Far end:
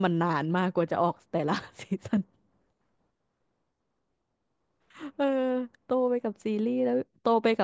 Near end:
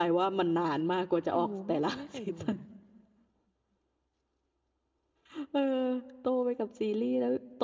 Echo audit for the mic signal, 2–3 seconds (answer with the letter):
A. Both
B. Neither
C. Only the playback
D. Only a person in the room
A